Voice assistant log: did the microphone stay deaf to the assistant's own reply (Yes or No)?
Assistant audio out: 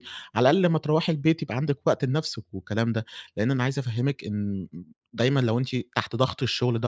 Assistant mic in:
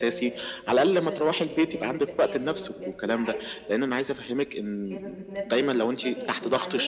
No